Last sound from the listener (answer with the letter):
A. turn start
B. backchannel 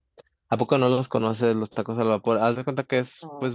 B